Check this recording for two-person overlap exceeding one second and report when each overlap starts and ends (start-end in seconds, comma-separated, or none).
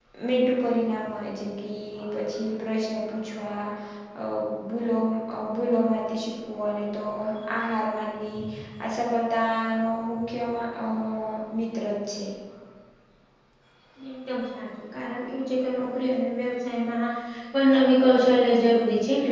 none